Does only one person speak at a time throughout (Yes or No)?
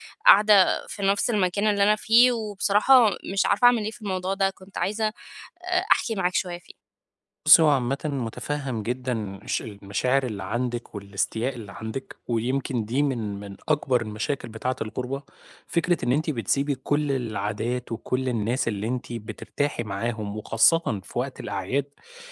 Yes